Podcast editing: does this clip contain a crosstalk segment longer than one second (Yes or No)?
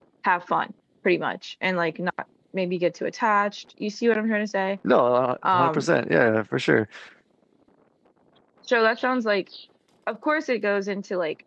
No